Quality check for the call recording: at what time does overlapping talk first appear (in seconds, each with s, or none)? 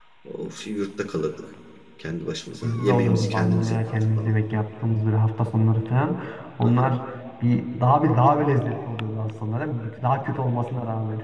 2.6 s